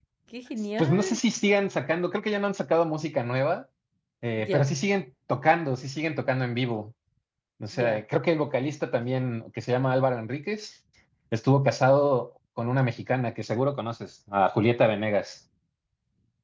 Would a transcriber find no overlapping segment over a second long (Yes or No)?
Yes